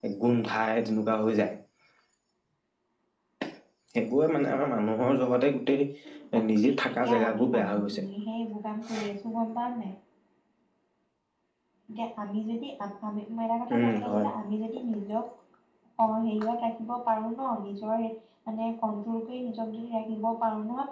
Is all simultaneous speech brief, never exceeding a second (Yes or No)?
No